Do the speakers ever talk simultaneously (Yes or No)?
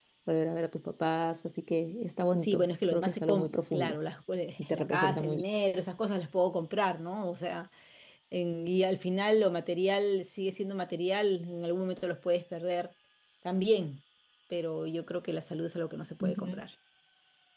Yes